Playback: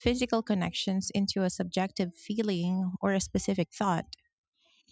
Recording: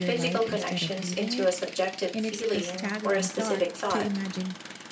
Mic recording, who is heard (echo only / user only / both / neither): both